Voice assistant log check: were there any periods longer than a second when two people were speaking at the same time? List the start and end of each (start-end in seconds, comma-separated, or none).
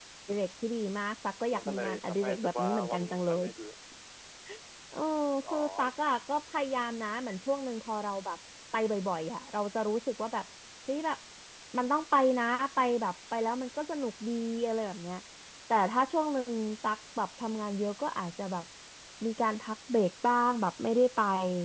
1.6-3.3